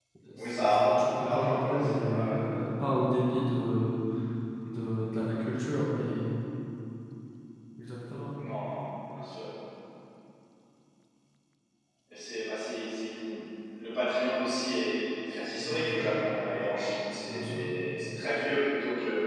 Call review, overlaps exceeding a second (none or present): present